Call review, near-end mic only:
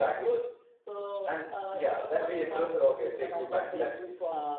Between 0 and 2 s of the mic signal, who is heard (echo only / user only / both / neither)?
echo only